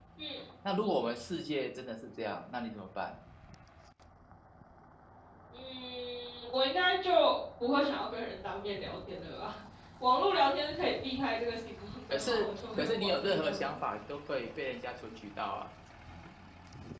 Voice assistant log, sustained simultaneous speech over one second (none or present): present